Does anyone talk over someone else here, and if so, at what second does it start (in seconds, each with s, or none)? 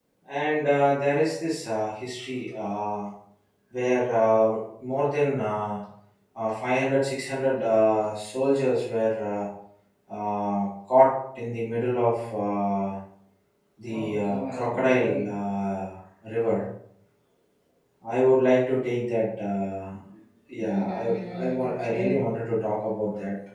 13.9 s